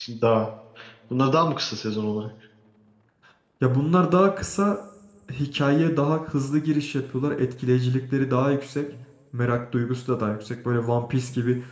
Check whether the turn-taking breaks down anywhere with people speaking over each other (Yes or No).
No